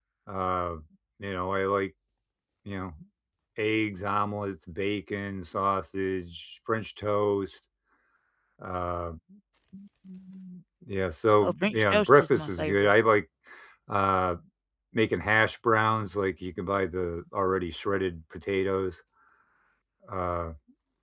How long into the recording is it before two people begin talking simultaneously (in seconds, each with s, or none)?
11.4 s